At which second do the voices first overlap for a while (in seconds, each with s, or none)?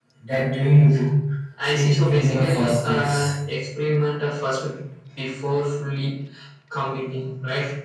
1.7 s